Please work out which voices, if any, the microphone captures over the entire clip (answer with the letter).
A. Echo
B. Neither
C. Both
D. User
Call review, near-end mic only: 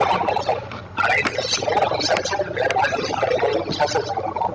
A